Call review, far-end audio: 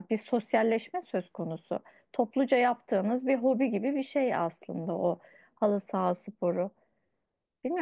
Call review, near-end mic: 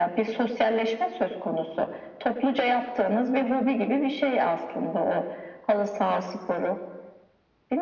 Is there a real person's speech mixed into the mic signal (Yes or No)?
No